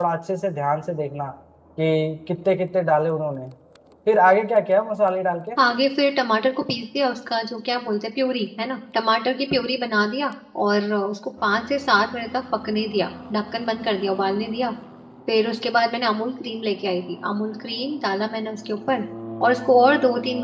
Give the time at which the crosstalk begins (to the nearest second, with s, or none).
none